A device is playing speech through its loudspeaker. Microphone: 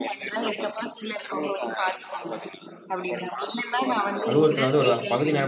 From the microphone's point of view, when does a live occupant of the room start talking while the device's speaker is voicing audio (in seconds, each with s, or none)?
4.3 s